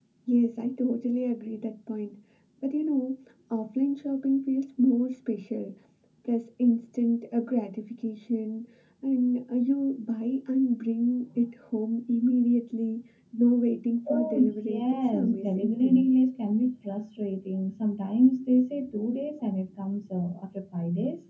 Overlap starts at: 14.1 s

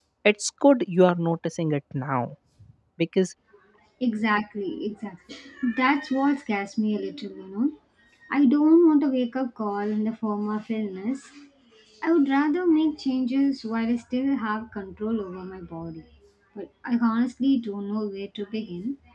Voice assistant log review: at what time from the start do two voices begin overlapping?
none

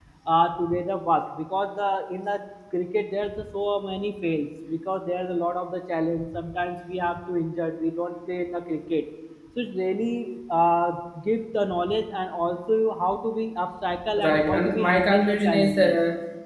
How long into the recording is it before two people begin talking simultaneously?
14.2 s

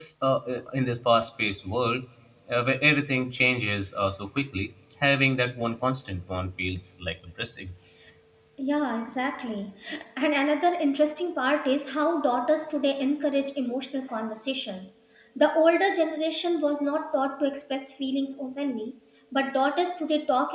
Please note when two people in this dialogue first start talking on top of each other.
none

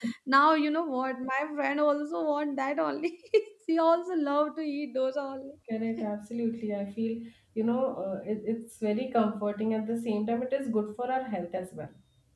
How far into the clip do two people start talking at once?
none

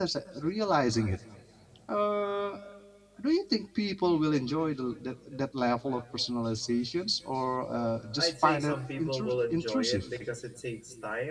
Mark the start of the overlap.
8.2 s

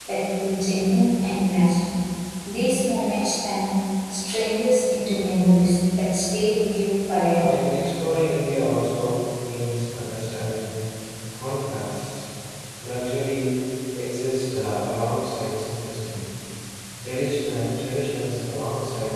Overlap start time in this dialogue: none

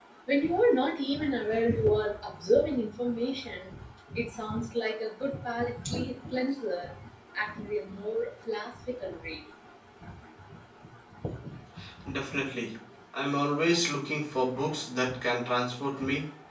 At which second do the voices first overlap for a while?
none

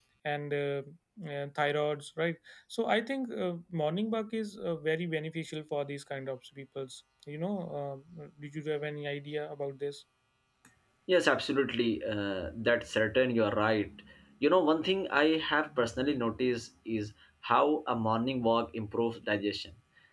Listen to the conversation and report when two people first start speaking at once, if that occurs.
none

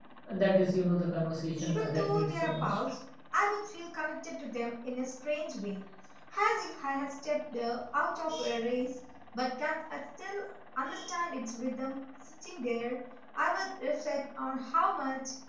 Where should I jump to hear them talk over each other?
1.6 s

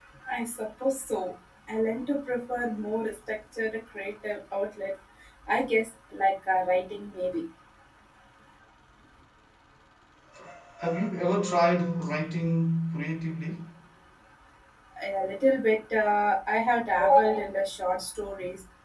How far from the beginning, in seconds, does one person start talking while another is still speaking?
none

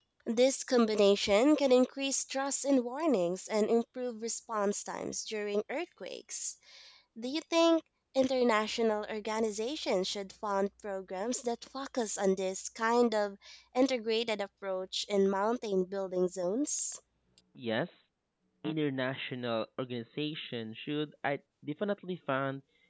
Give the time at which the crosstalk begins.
none

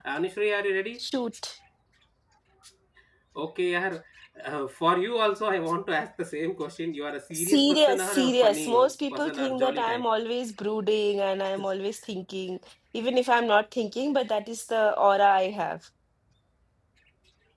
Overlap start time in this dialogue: 7.3 s

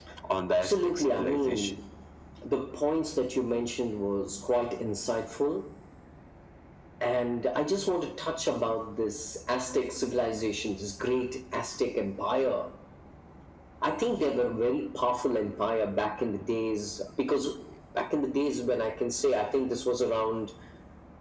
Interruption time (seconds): 0.5 s

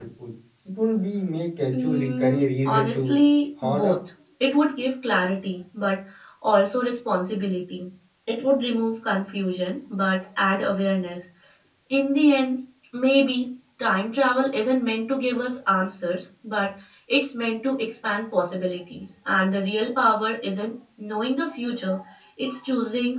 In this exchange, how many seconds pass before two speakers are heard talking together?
1.7 s

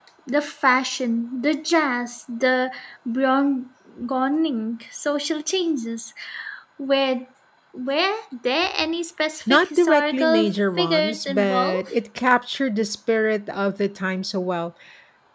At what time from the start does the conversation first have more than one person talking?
9.5 s

